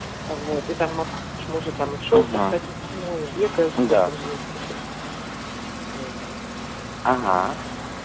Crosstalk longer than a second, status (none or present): none